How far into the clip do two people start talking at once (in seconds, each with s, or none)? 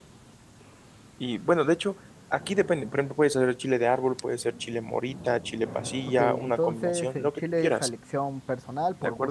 6.1 s